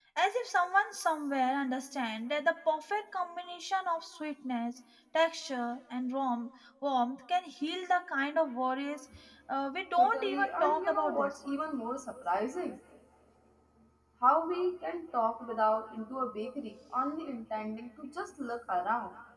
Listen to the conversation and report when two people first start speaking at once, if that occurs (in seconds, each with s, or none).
10.0 s